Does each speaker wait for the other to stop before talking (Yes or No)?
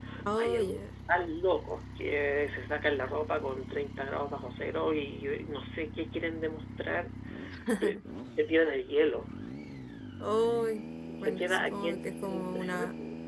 No